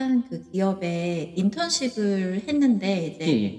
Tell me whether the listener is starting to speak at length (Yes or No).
No